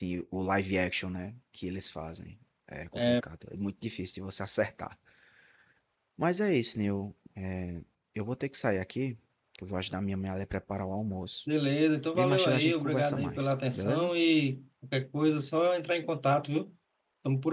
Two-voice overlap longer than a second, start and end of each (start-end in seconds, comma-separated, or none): 12.1-14.1